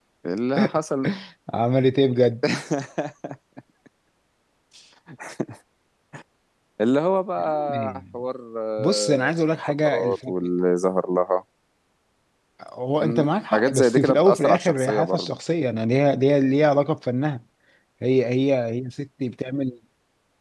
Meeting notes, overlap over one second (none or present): present